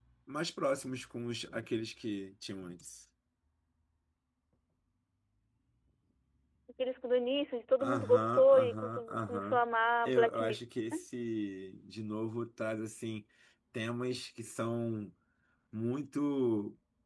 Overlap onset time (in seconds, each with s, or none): 7.8 s